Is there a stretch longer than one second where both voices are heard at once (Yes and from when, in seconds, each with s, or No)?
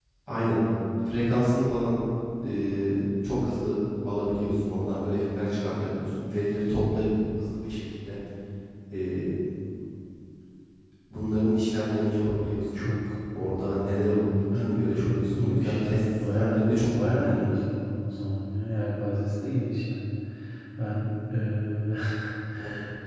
Yes, from 14.5 s